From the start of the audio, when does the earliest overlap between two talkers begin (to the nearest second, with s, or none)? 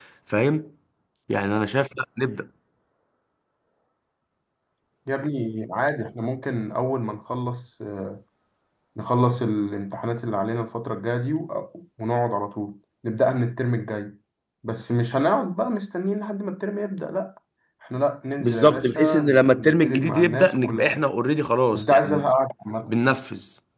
18 s